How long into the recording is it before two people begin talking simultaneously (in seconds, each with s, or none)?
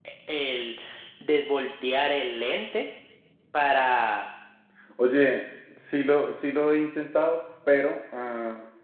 none